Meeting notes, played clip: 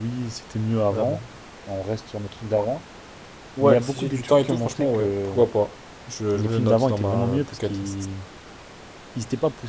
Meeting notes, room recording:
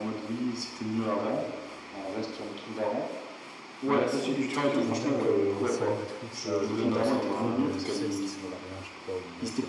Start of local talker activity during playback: 4.8 s

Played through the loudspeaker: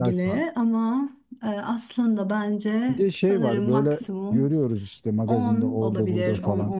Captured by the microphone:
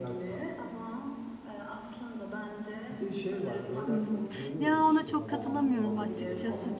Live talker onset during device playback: 3.9 s

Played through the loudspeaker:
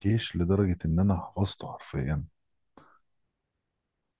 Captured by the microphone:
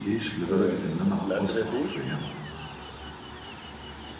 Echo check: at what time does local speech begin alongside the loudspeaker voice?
0.5 s

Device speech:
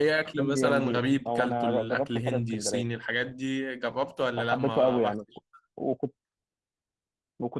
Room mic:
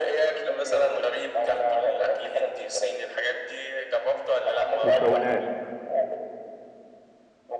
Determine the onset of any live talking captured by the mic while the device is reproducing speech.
4.8 s

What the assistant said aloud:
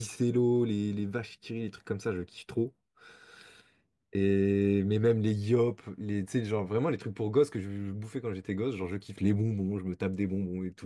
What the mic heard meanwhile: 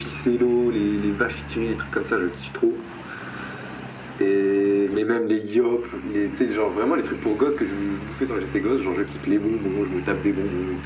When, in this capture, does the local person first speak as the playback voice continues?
none

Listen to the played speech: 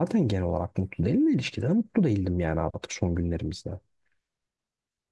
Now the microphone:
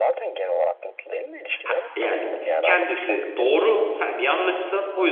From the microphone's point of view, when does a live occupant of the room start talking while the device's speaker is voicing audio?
1.6 s

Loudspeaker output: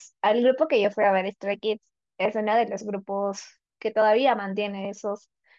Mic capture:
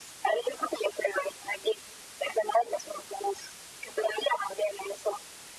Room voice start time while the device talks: none

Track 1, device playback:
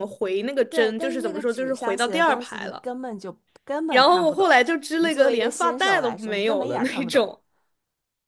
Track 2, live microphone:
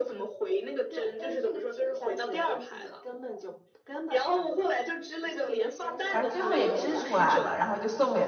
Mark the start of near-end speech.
6.1 s

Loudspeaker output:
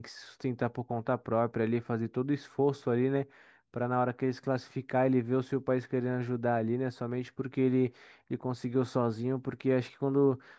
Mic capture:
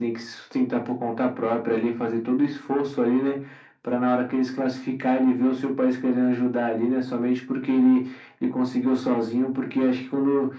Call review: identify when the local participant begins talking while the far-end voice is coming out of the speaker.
none

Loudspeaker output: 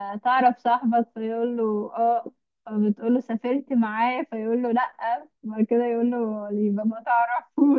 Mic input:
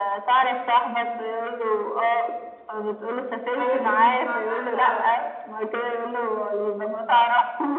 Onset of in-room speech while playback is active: 3.6 s

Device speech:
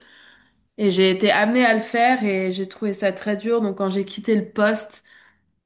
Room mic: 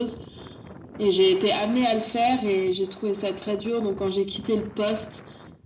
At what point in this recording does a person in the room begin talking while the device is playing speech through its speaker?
none

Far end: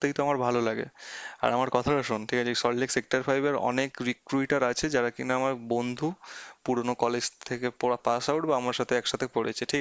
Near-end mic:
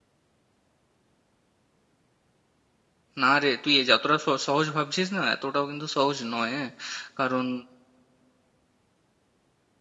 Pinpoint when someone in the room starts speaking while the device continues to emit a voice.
3.2 s

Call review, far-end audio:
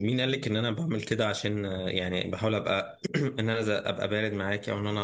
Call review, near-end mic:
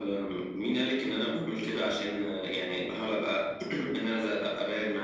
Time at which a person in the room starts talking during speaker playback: none

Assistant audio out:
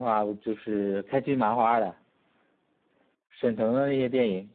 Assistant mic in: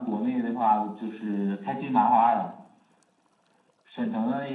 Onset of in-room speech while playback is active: none

